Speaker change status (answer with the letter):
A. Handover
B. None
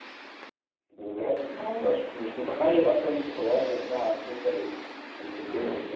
A